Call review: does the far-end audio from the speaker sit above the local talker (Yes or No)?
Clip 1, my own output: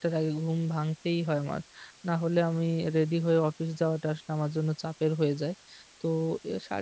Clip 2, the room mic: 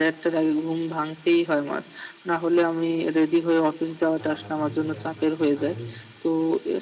Yes